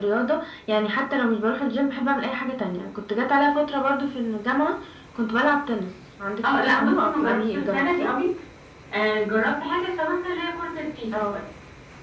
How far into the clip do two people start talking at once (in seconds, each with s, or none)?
6.4 s